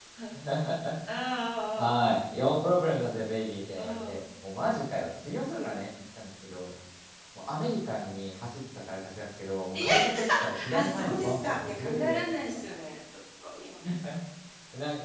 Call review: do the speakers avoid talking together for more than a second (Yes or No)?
No